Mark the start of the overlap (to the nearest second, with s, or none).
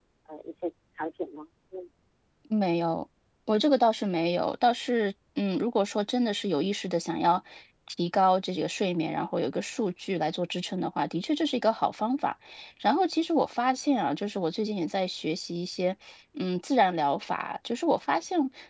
none